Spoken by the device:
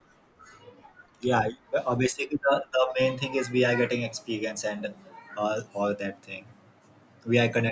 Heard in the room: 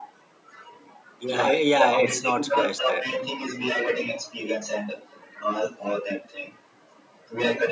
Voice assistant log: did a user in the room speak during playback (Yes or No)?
Yes